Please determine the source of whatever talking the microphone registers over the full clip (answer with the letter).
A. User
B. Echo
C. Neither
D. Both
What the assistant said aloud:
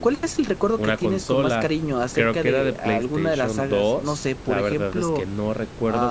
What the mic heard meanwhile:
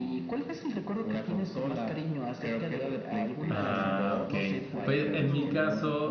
D